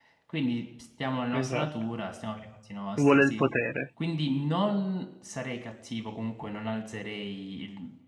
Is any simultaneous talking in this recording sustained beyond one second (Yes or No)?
No